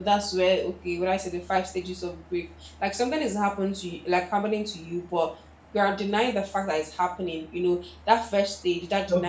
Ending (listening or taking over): listening